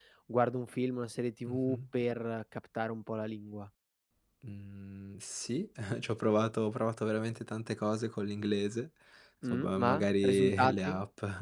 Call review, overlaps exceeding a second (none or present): present